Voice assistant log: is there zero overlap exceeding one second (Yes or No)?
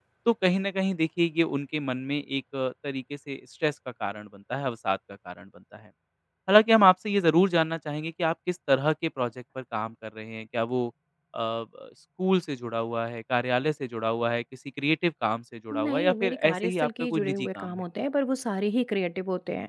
No